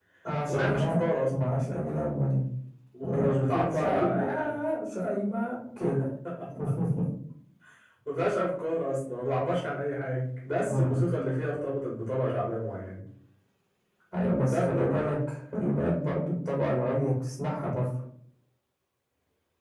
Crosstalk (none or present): present